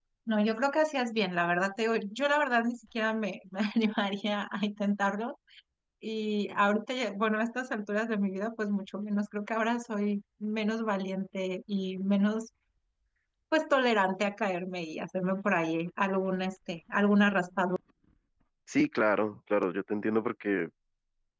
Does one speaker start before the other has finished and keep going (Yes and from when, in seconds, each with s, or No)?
No